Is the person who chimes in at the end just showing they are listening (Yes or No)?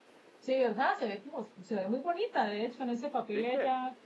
Yes